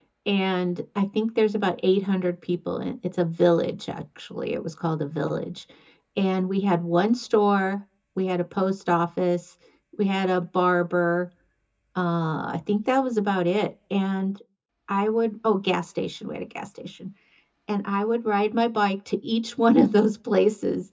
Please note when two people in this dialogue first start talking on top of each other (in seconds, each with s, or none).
none